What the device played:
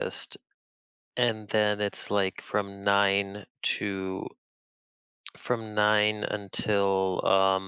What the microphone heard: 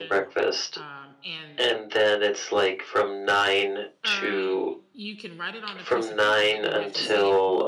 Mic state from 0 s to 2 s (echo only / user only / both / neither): both